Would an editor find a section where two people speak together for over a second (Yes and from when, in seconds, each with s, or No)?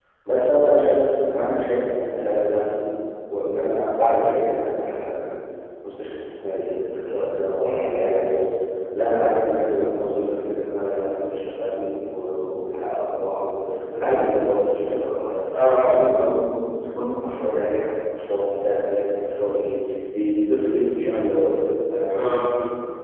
No